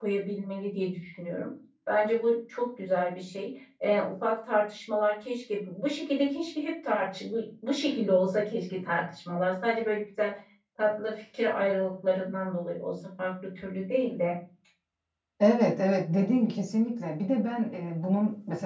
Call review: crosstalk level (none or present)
none